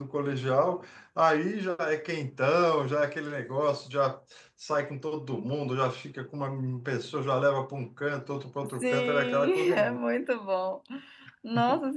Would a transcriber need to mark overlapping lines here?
Yes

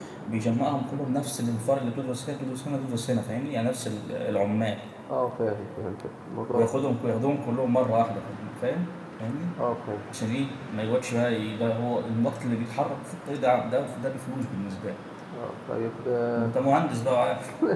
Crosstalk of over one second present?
No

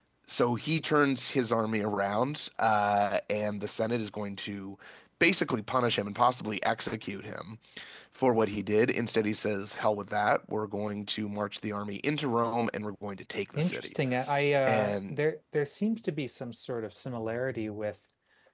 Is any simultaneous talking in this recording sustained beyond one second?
No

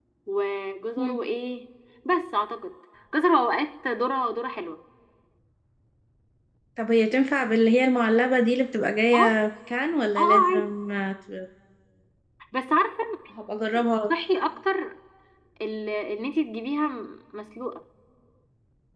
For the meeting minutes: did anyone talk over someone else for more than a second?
No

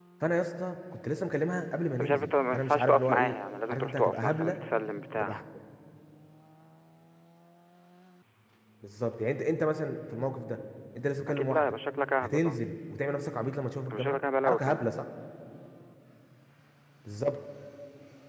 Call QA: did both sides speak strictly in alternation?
No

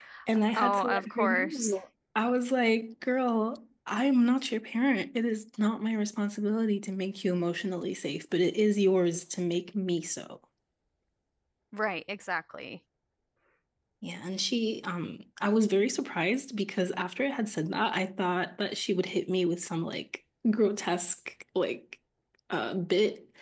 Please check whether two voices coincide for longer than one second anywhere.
Yes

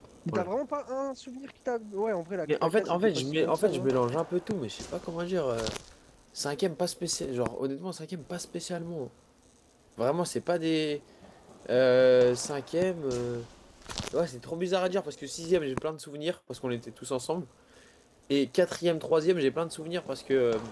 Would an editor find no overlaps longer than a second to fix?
No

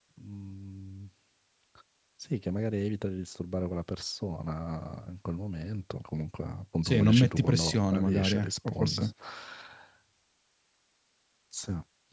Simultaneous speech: Yes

